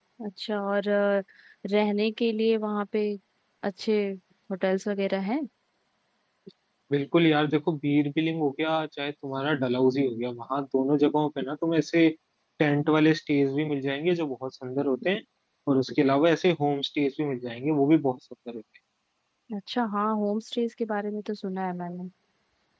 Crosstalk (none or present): none